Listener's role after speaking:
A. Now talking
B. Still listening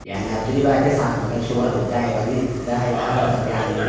A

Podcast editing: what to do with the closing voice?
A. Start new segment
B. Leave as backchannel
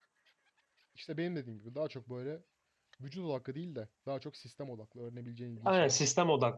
A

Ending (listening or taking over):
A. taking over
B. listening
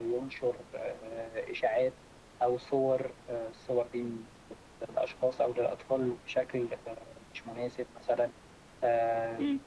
A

